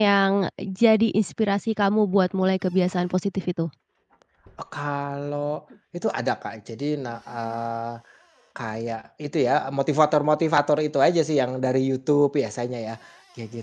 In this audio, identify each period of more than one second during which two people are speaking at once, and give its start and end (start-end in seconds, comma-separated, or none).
none